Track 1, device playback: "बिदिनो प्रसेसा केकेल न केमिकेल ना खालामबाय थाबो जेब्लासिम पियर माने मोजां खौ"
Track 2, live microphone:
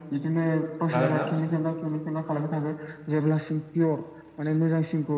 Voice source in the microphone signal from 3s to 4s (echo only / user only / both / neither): echo only